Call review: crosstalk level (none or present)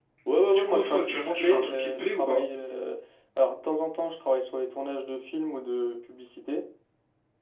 present